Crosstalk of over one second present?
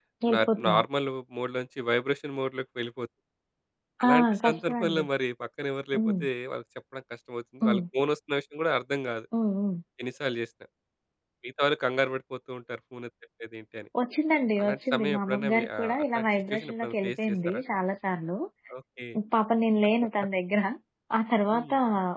Yes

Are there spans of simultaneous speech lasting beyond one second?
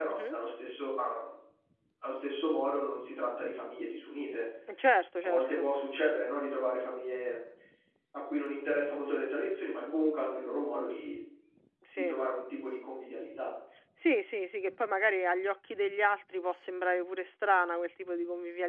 No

